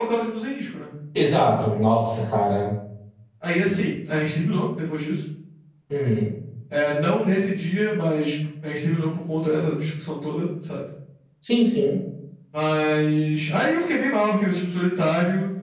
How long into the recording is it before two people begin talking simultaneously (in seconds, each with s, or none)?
none